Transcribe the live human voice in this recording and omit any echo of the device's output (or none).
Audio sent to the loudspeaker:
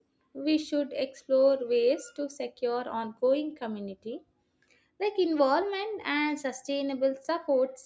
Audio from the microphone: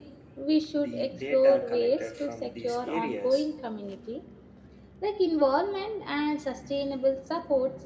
the data collected from these areas